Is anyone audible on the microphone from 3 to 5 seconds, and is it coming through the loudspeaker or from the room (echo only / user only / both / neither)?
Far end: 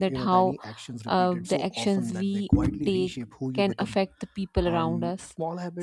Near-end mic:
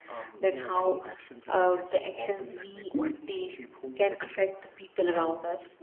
echo only